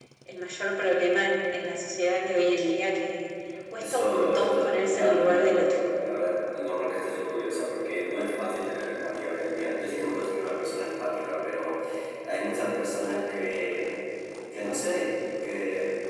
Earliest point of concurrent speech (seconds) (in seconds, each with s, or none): 3.8 s